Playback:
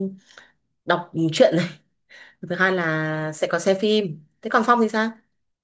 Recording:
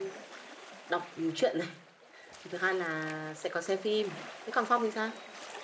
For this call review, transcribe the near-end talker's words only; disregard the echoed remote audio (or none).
none